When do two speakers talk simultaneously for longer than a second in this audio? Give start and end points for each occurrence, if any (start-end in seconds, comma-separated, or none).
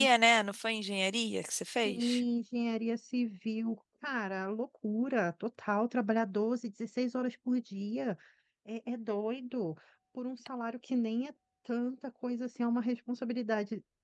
none